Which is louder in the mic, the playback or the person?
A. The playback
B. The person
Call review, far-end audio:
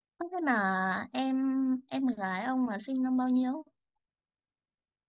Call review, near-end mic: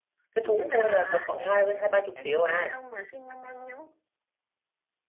B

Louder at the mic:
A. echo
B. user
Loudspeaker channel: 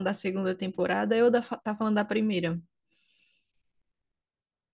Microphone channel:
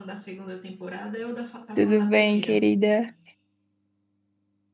B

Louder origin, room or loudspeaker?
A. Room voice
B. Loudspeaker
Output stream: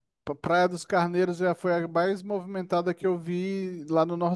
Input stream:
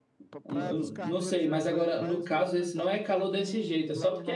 A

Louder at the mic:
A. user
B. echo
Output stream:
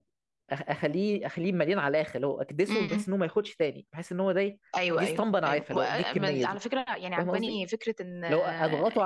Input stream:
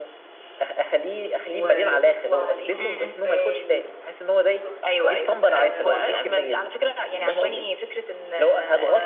B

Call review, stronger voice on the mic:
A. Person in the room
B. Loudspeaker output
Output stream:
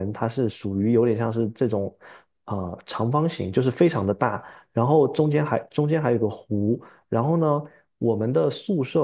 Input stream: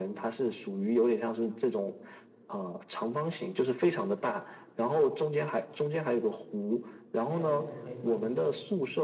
B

